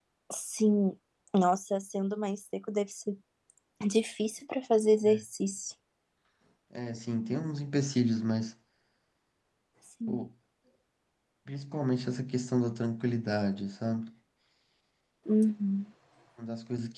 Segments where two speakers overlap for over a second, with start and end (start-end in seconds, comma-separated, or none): none